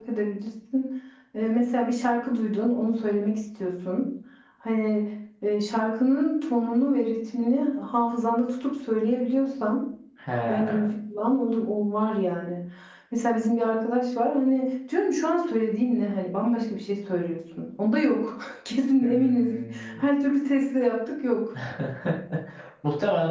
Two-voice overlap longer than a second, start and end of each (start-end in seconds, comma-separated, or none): none